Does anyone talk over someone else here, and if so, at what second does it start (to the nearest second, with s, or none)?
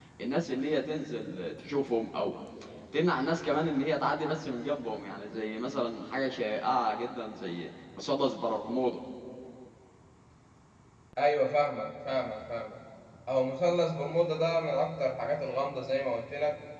none